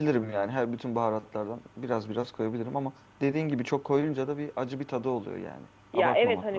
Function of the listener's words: taking over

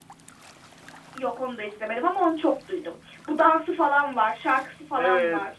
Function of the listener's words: taking over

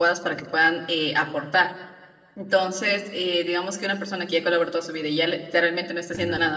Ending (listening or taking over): listening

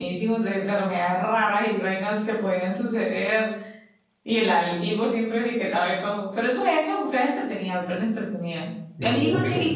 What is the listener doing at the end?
listening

